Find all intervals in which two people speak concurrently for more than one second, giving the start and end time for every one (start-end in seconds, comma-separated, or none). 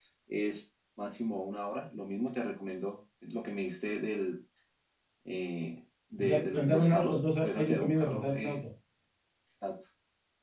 6.2-8.6